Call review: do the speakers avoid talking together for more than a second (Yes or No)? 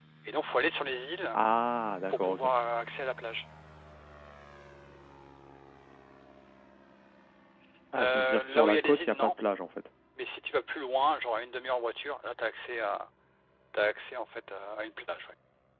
No